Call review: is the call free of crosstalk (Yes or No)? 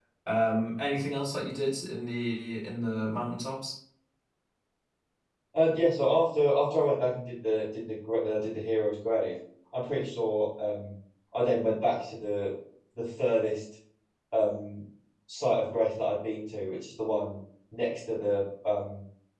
Yes